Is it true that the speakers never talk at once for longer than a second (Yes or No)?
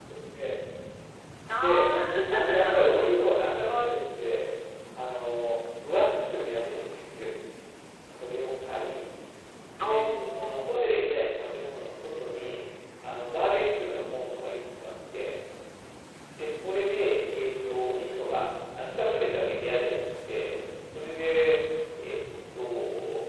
No